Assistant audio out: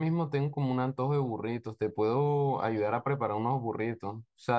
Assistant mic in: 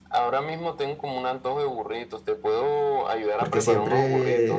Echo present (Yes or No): Yes